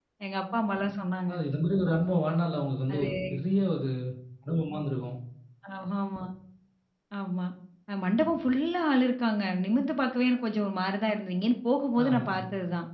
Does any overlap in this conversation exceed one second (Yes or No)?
No